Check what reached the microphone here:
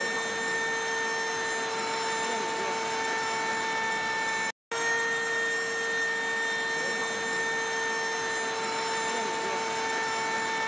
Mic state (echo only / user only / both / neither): neither